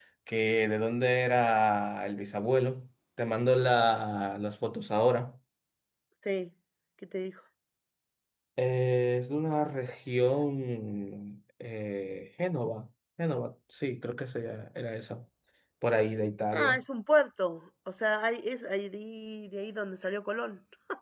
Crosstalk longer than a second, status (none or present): none